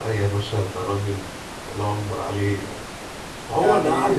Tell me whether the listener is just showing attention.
Yes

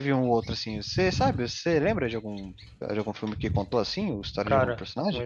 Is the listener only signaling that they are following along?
No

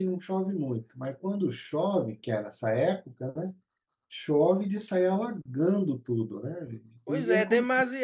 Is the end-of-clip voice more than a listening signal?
Yes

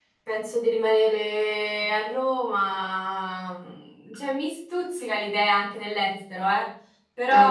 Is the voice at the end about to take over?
No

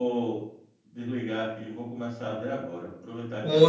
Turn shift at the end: No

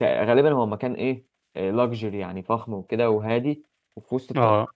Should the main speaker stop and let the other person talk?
No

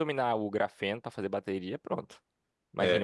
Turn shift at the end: No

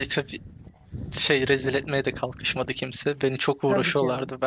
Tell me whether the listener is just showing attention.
No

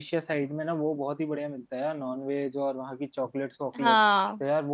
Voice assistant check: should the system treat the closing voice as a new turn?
No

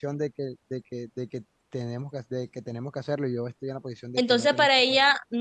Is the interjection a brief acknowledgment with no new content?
No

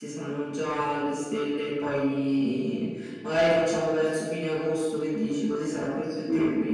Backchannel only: No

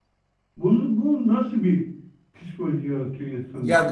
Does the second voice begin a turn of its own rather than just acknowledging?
Yes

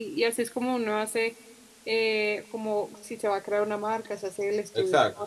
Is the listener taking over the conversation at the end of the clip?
No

